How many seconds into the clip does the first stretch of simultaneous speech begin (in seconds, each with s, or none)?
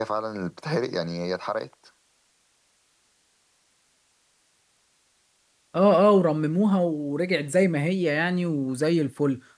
none